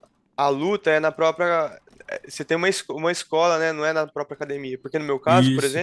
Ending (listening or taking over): listening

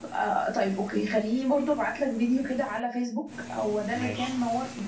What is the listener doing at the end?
listening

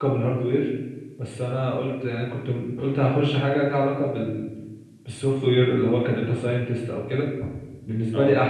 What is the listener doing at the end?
listening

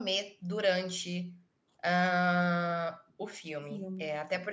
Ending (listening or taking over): listening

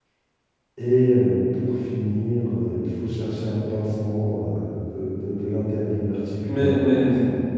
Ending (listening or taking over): taking over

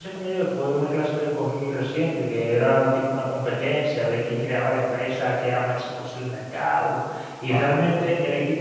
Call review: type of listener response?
listening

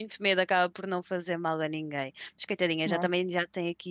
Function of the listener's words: listening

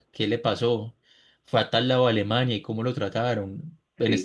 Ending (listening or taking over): listening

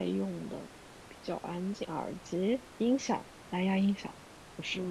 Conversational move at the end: taking over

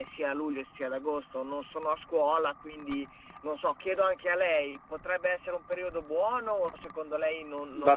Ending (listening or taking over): taking over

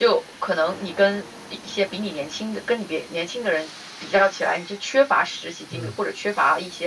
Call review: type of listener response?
listening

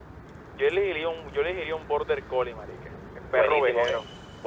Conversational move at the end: taking over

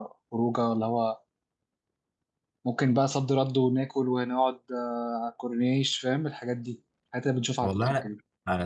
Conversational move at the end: taking over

